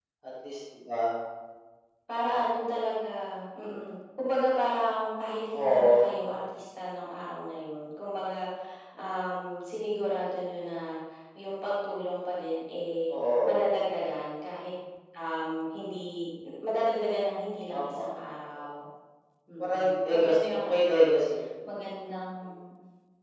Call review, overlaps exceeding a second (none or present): present